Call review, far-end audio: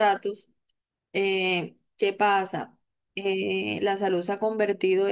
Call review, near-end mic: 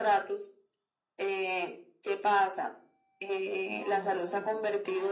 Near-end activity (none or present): present